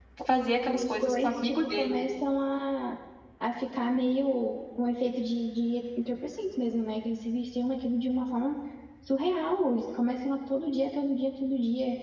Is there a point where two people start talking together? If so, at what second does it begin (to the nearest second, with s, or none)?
1 s